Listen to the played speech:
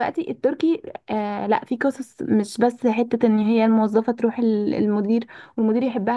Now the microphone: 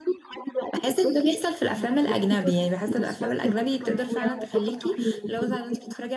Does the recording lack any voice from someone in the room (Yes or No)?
No